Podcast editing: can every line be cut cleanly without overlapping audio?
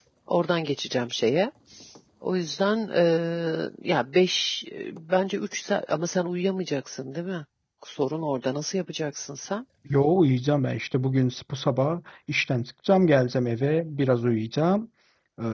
Yes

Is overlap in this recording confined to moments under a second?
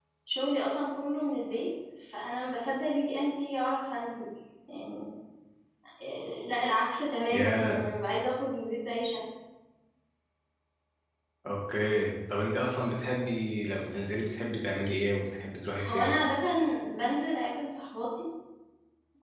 Yes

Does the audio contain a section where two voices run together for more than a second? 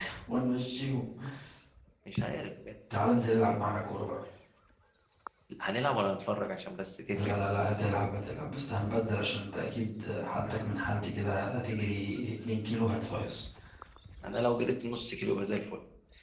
No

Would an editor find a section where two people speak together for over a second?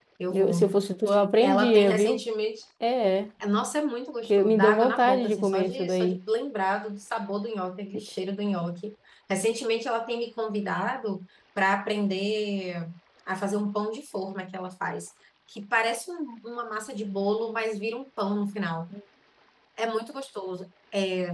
Yes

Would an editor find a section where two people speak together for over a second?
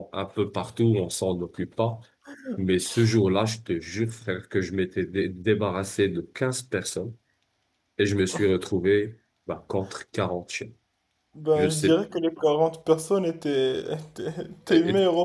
No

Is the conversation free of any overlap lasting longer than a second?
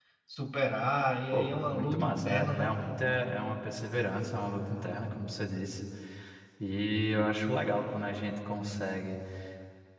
No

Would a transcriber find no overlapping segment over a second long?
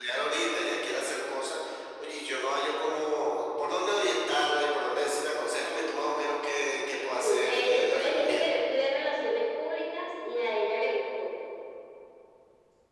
No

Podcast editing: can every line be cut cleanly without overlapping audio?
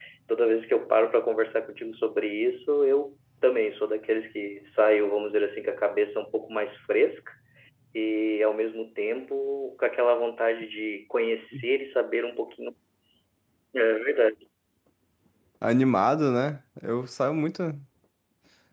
Yes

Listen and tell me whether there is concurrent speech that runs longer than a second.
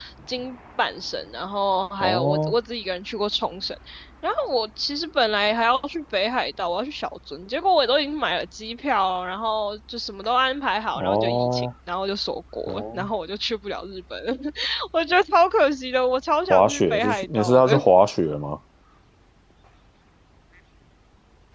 Yes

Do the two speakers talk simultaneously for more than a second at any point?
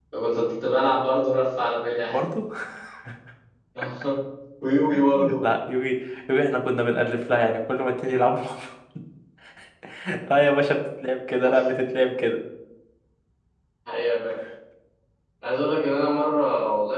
No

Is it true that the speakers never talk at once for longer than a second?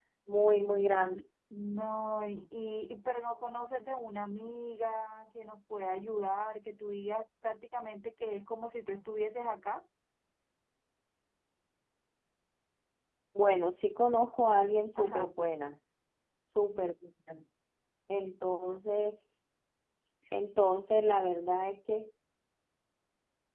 Yes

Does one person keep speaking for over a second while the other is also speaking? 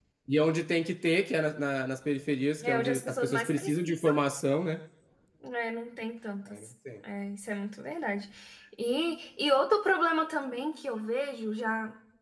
Yes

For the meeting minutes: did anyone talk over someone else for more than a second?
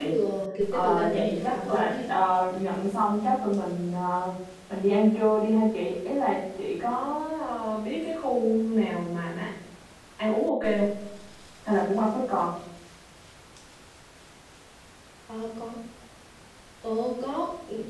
Yes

